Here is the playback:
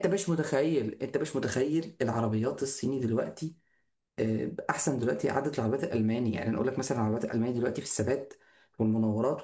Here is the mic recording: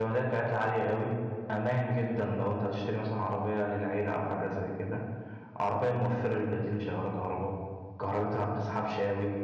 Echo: none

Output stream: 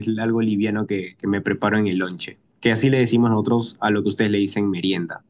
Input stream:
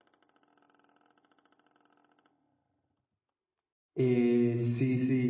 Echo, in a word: none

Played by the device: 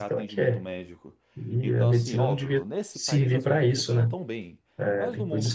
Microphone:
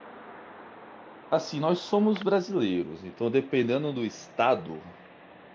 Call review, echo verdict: none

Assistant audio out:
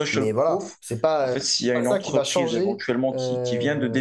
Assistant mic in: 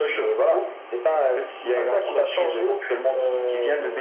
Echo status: present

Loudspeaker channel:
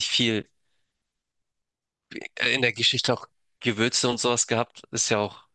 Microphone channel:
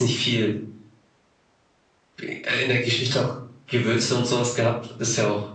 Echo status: present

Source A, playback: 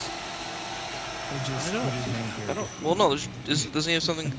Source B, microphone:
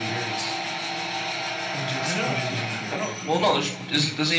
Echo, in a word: present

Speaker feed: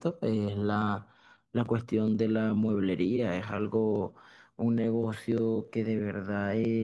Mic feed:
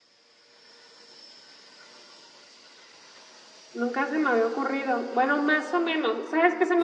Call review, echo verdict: none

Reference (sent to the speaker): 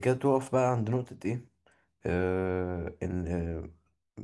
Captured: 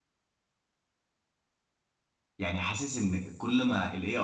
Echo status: none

